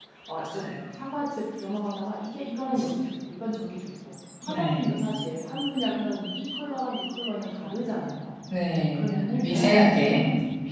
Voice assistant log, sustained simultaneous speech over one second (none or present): present